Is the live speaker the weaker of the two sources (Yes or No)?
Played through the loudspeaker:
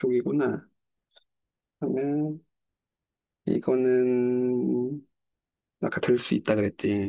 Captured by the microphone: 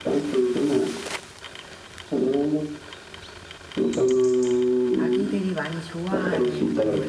Yes